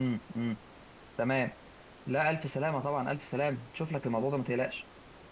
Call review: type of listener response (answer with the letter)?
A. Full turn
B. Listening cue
B